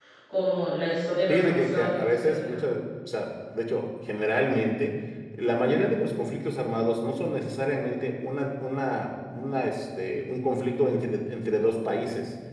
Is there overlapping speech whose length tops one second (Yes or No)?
Yes